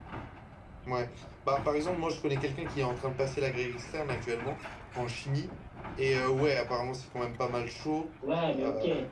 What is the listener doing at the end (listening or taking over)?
taking over